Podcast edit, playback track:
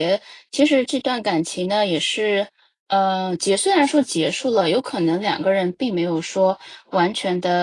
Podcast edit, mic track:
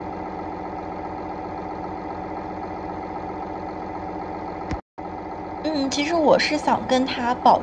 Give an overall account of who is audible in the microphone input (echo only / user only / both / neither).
user only